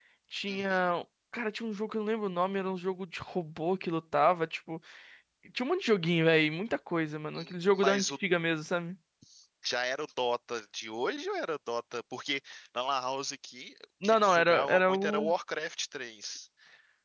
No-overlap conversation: No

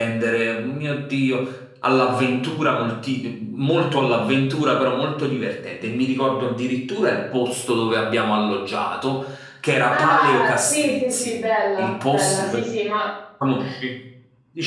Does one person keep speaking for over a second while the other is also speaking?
Yes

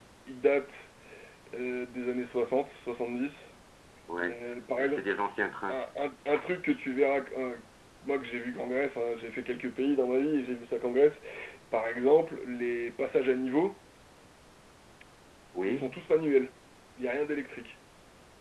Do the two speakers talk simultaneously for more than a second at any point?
No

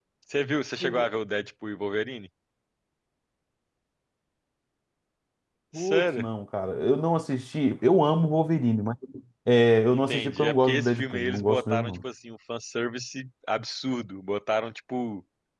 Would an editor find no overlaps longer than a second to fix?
No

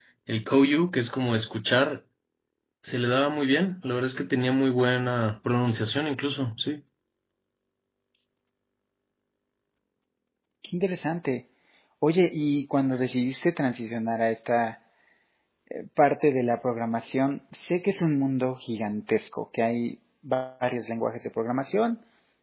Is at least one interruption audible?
No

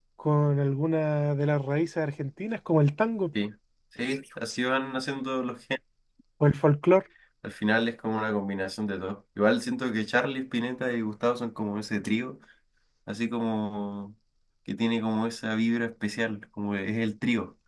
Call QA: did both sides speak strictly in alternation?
Yes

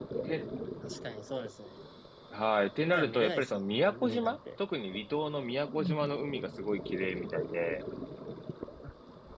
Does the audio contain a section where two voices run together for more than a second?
Yes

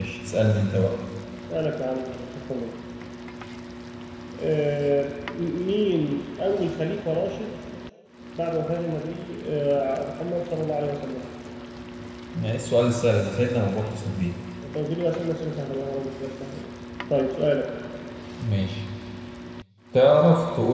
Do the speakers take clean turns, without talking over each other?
Yes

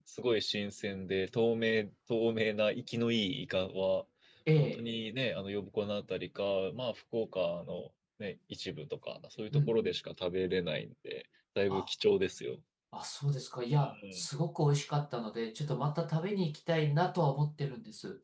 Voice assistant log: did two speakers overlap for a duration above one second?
No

